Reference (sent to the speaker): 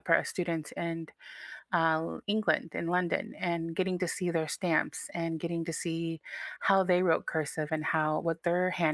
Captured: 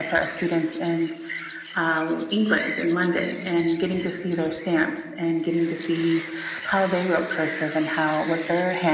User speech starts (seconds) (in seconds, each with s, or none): none